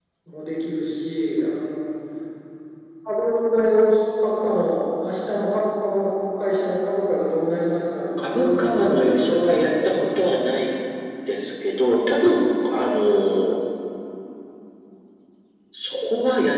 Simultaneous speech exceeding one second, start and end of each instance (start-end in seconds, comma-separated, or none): 8.2-10.0